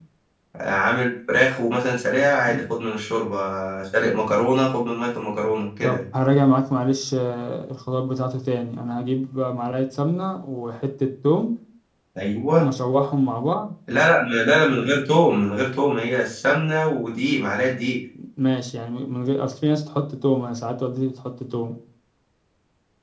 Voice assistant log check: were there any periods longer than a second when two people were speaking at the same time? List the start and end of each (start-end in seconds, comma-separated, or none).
none